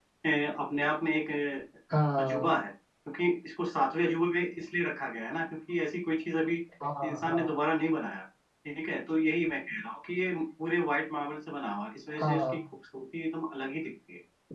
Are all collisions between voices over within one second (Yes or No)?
Yes